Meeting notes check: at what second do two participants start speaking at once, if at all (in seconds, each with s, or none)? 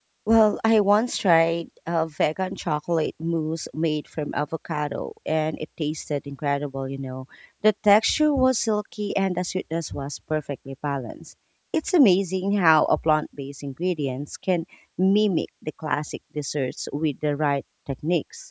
none